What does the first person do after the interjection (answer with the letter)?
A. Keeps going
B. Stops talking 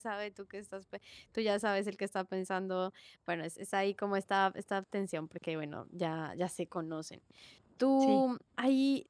A